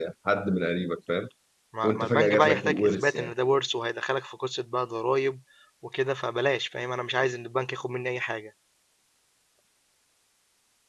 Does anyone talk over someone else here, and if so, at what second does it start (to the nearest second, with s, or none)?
2 s